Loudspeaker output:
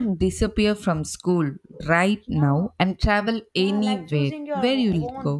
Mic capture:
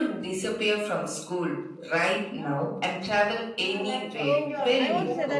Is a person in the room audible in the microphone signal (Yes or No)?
Yes